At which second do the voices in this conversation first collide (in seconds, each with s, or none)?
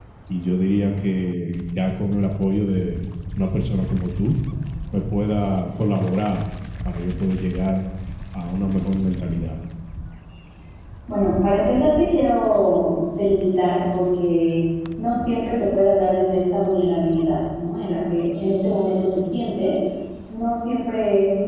none